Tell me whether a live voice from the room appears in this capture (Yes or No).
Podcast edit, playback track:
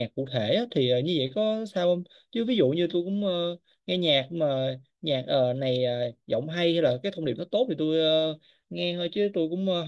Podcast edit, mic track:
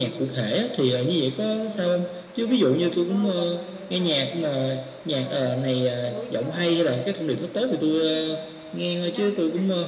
Yes